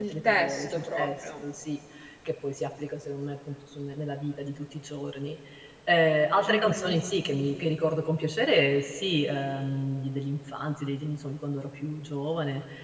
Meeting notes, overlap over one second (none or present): present